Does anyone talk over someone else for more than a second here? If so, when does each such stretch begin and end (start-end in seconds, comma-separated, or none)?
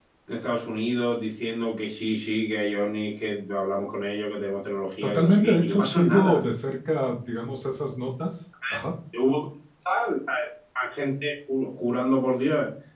5.0-6.4